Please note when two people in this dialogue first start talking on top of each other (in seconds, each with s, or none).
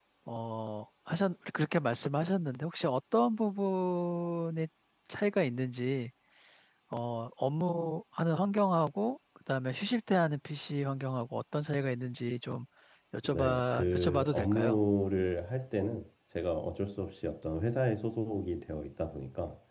13.3 s